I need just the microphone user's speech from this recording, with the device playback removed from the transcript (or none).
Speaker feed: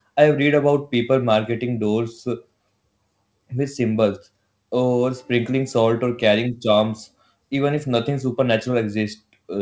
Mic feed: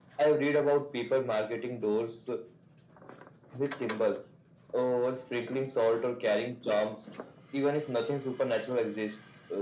none